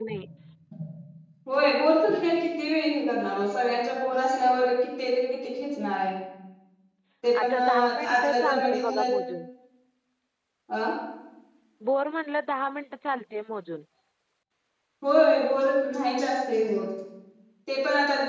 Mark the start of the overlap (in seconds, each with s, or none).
7.4 s